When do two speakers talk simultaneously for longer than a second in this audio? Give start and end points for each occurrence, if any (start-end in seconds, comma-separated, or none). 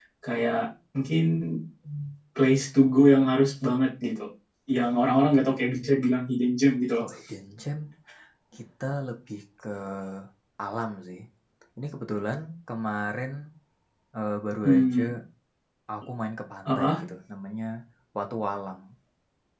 none